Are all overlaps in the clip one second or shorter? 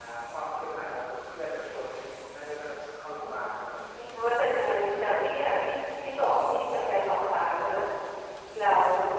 Yes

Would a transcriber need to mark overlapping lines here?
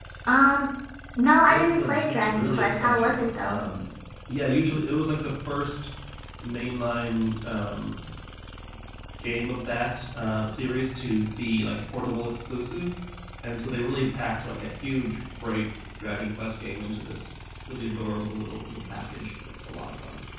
Yes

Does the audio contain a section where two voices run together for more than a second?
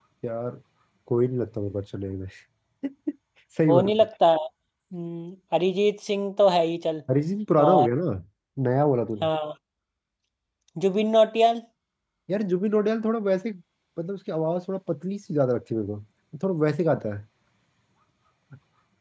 No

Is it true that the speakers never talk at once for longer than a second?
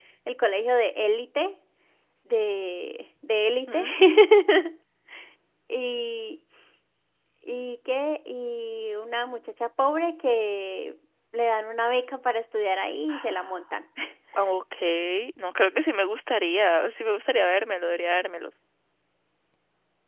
Yes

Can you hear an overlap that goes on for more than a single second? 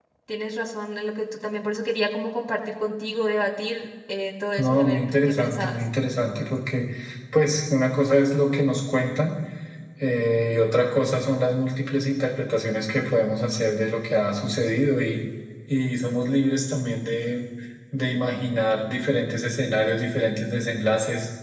Yes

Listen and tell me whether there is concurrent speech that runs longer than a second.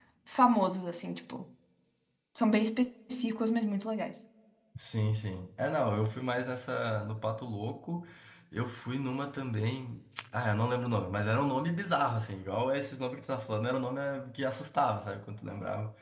No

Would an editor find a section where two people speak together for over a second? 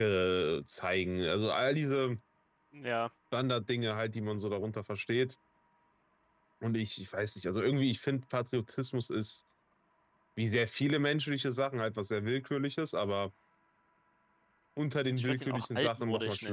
Yes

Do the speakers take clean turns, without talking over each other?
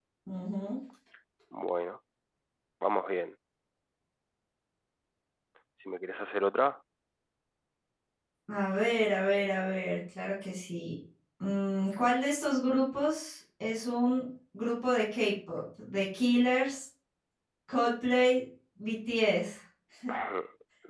Yes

